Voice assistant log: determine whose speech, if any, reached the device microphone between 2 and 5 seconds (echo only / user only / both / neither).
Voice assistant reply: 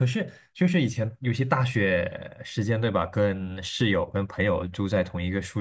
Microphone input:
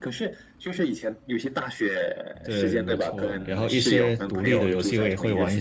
both